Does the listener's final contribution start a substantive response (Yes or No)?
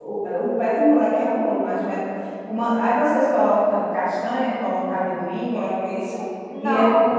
No